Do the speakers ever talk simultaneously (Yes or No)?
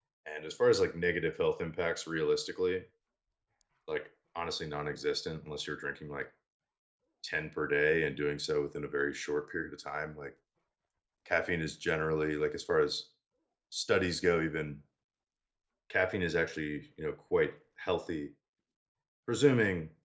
No